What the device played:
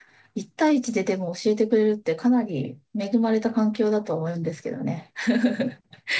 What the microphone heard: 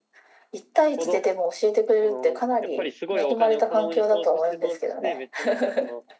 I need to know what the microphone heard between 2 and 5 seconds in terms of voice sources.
both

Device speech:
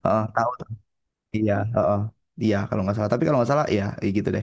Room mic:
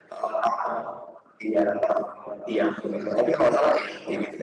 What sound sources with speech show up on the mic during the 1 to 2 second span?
echo only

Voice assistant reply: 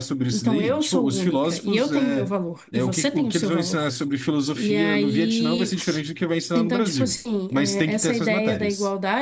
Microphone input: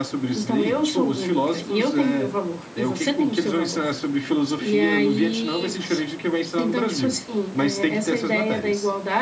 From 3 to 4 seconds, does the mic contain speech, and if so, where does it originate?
echo only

